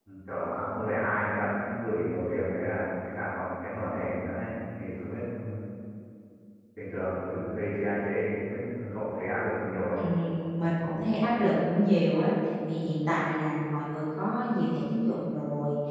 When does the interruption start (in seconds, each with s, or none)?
none